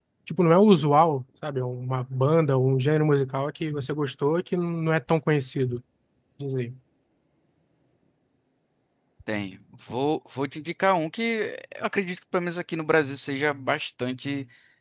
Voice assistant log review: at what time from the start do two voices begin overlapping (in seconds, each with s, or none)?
none